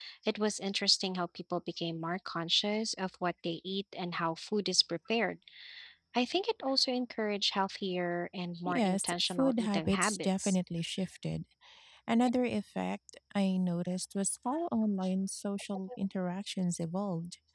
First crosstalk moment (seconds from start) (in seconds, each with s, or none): 8.7 s